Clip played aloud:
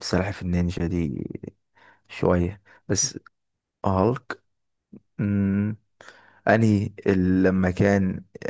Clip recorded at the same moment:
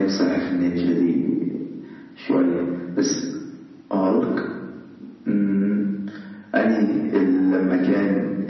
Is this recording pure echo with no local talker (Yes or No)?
Yes